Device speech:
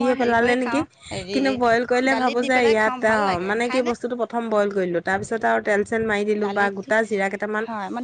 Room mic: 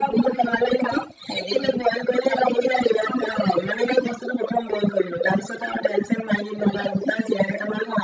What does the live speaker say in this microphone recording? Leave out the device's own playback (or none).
none